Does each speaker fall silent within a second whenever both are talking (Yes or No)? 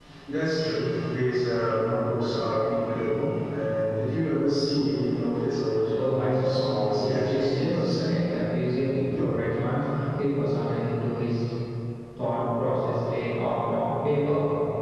No